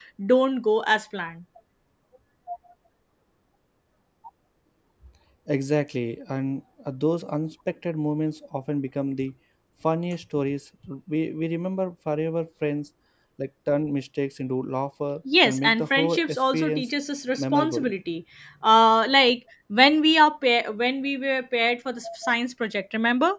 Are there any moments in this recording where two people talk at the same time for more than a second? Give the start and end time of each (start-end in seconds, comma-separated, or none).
15.4-16.9